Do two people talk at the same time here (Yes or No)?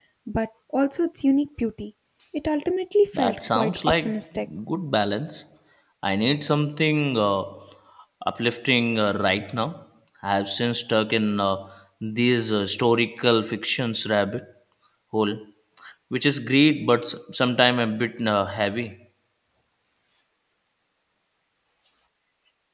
Yes